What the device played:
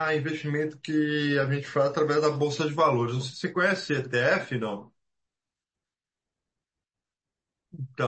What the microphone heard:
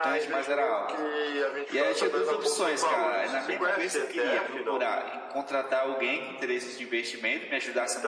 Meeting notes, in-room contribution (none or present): present